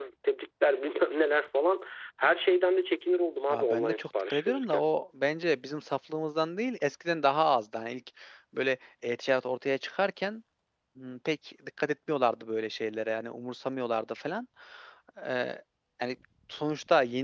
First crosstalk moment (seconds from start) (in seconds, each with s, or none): 3.5 s